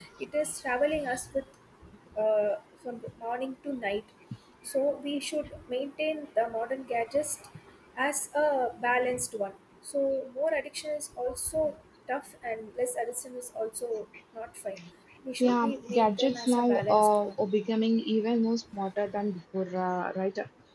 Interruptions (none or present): present